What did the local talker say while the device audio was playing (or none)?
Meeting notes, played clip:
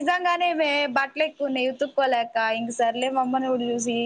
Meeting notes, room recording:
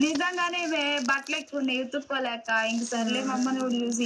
హ్మ్మ్